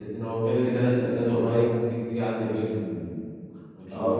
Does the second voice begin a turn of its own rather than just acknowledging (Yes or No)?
Yes